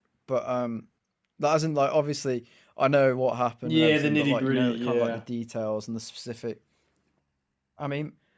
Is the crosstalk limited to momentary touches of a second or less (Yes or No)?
No